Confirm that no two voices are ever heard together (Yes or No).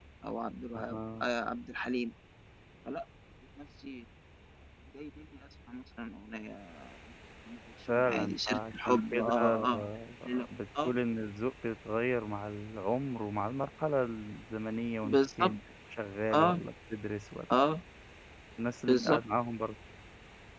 No